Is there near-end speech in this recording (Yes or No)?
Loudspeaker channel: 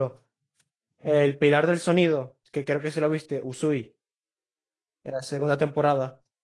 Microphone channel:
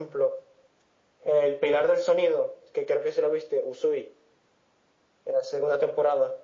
No